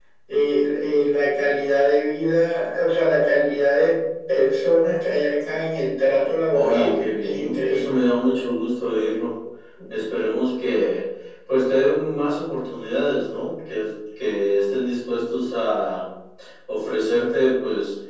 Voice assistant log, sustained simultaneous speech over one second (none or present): present